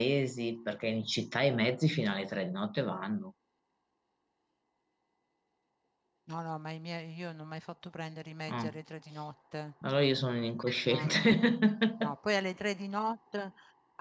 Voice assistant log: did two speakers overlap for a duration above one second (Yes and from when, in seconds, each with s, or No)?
No